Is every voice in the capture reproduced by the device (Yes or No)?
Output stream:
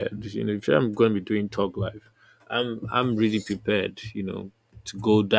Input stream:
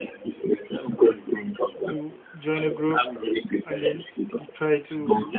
No